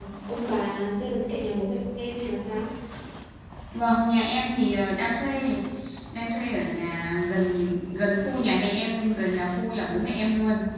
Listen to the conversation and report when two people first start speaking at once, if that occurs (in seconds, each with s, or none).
none